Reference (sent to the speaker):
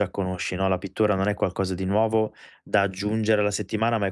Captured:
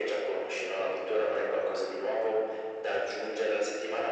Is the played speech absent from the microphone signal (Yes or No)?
No